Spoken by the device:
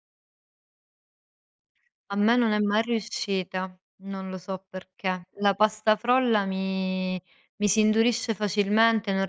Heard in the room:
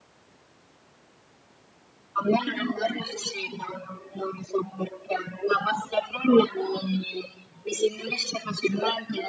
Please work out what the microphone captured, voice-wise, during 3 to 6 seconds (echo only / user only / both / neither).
echo only